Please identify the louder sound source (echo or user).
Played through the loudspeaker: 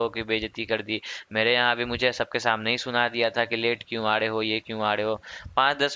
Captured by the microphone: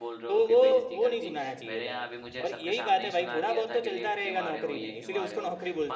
user